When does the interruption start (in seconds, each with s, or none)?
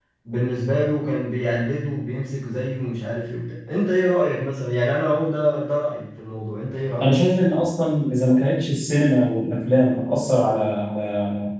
none